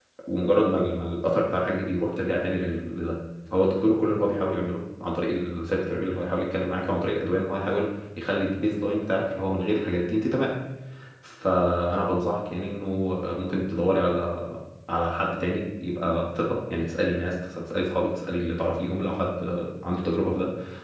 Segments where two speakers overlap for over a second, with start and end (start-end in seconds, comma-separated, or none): none